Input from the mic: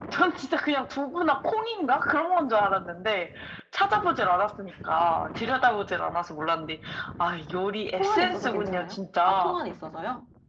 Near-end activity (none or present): present